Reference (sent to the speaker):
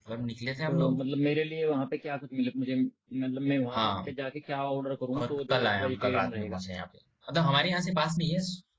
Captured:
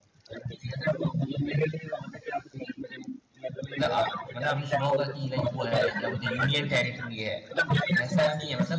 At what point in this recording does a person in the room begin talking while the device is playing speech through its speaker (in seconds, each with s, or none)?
3.8 s